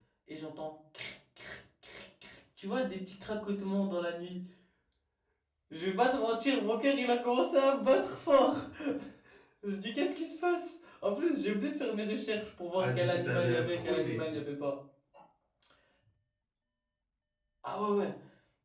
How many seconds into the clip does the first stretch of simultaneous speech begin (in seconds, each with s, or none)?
12.8 s